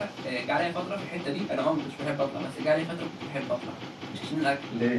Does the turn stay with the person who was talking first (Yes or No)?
Yes